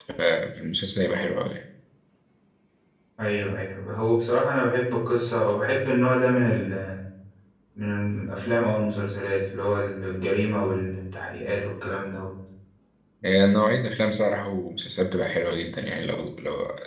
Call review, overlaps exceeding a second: none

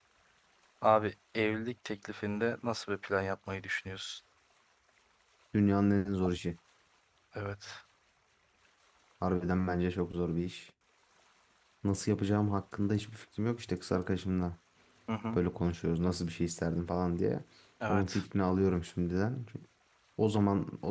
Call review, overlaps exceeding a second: none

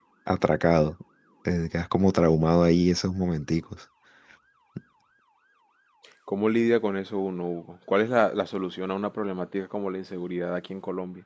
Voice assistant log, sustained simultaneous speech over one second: none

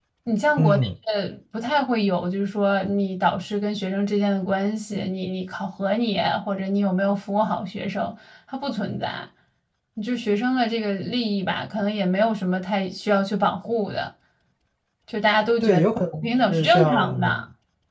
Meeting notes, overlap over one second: present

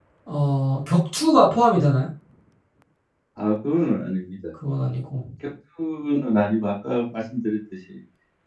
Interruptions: none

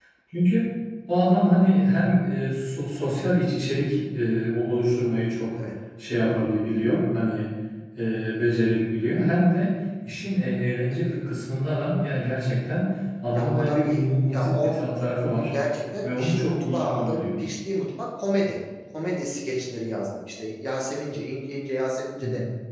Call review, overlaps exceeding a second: present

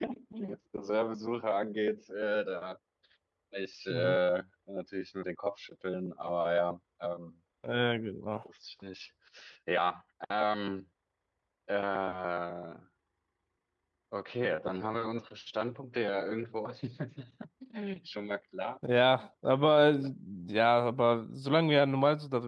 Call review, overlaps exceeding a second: none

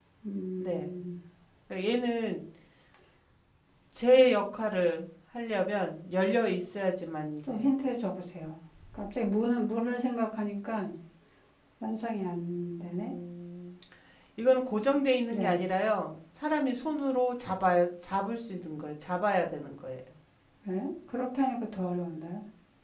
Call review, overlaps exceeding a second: none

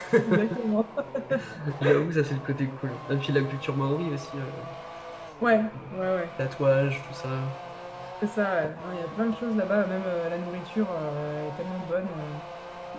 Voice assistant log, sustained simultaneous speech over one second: none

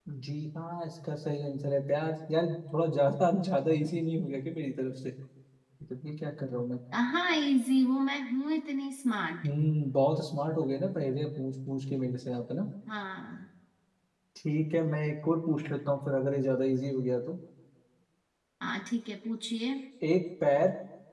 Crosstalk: none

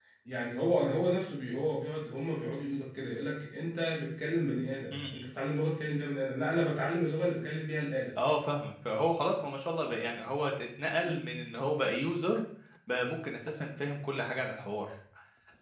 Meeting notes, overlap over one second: none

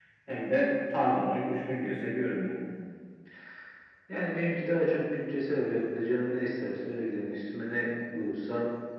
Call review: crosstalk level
none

